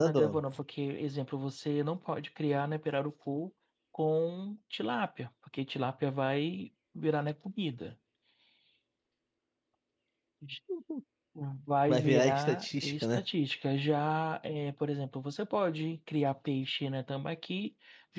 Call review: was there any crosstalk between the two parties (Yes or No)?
Yes